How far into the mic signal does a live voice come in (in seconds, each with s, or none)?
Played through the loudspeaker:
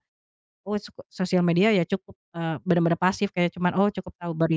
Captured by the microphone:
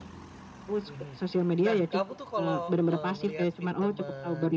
0.9 s